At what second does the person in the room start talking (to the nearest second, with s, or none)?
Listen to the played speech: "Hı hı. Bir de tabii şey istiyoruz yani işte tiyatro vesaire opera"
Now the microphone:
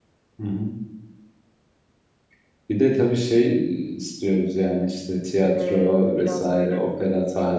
6 s